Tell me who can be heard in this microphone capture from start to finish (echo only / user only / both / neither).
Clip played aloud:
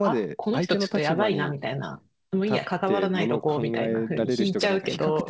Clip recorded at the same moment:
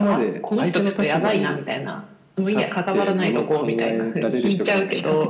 echo only